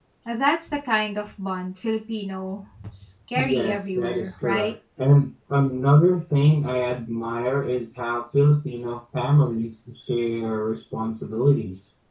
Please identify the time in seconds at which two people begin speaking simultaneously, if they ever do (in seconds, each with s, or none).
3.4 s